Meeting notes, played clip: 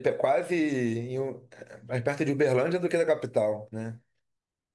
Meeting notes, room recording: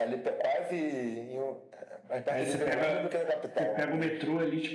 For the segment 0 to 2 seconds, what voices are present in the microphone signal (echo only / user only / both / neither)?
echo only